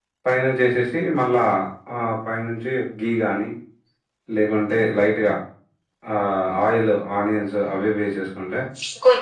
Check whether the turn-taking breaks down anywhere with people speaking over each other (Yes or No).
No